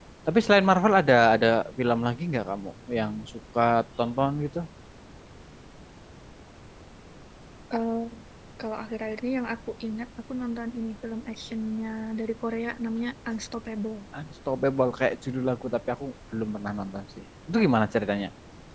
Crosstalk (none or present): none